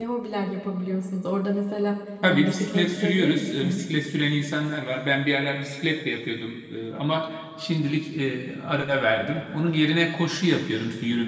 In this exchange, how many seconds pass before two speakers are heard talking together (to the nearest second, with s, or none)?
2 s